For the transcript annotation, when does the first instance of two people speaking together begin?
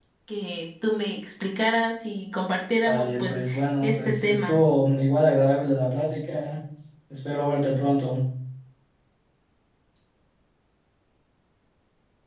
3 s

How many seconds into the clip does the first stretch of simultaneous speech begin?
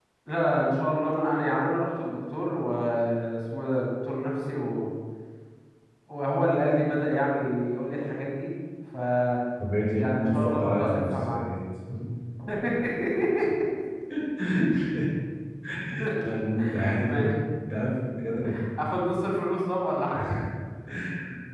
10 s

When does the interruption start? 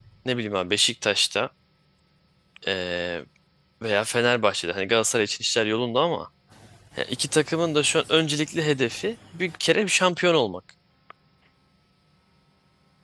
none

